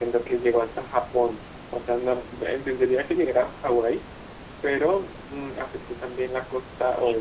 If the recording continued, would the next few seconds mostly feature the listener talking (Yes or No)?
Yes